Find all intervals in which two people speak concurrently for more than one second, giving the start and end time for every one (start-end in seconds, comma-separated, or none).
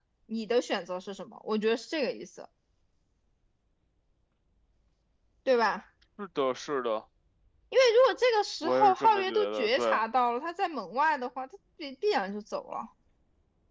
8.6-10.0